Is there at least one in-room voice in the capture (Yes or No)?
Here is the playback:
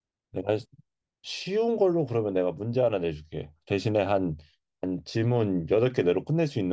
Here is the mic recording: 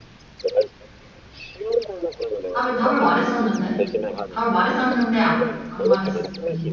Yes